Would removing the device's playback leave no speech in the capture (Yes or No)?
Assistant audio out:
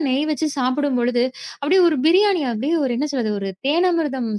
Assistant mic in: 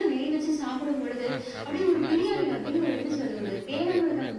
No